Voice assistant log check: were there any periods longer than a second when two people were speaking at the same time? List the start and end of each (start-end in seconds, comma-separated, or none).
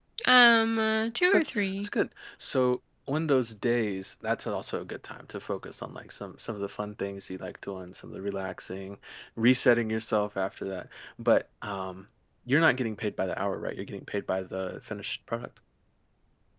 none